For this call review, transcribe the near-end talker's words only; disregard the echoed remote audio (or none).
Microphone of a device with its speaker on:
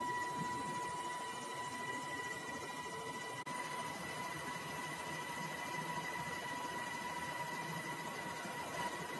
none